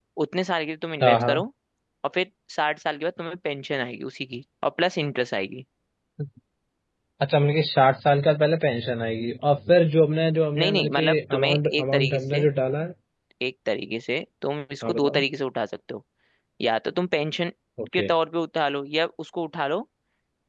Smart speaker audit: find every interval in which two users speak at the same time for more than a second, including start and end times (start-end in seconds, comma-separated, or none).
10.6-12.4